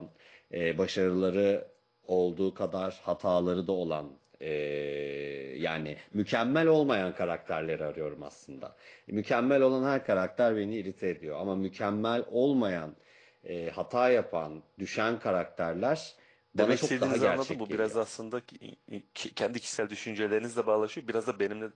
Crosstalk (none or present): present